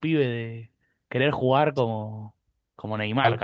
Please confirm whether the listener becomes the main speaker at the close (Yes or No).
Yes